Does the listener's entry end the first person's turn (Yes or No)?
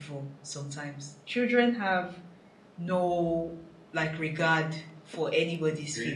No